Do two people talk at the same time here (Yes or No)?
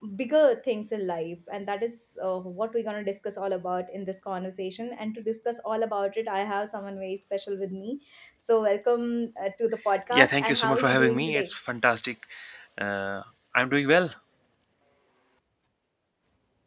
Yes